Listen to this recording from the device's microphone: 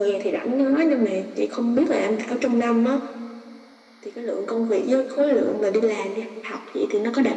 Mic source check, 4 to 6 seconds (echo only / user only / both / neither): echo only